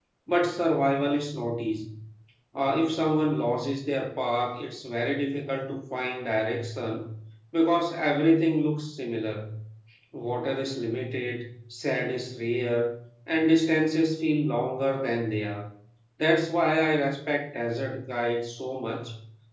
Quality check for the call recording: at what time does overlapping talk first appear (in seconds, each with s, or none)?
none